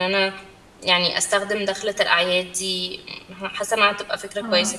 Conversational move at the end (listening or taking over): taking over